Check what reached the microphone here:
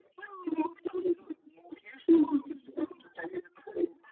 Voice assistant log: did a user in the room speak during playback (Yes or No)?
No